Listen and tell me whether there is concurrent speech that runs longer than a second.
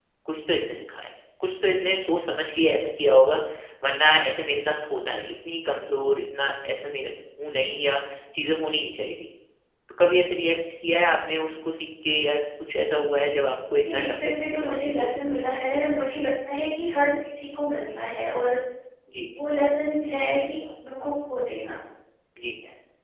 Yes, from 13.8 s

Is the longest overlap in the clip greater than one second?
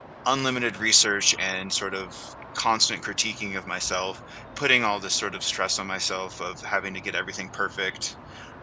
No

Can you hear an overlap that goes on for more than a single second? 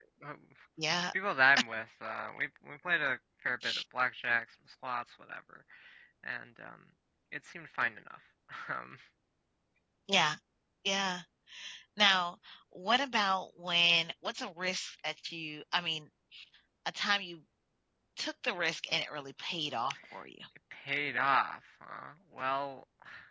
No

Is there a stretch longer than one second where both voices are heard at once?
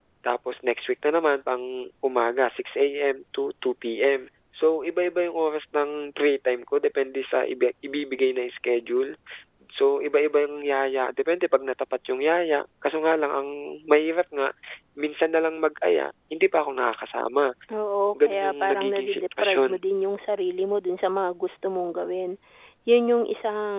Yes, from 18.3 s

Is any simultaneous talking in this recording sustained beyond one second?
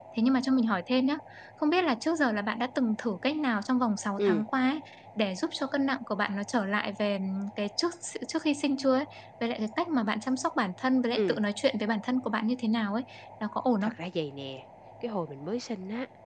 No

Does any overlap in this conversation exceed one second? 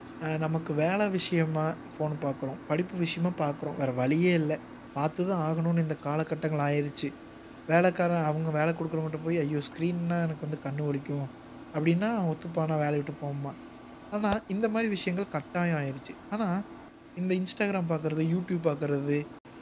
No

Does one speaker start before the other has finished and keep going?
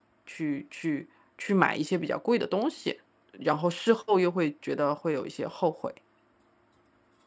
No

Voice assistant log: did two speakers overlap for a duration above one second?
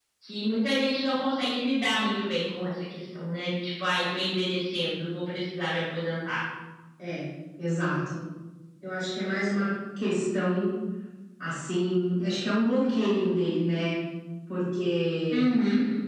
No

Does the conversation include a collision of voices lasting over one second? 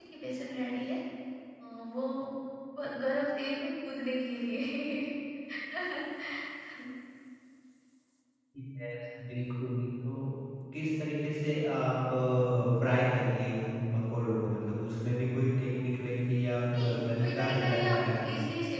Yes, from 16.7 s

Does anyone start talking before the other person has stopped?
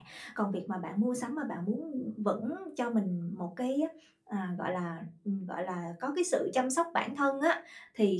No

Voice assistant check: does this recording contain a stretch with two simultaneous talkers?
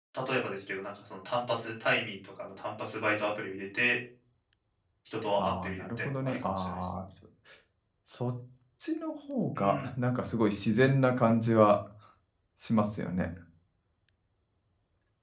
Yes, from 5.4 s

